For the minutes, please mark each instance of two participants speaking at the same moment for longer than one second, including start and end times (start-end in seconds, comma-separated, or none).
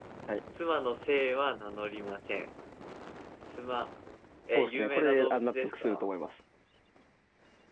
4.5-6.1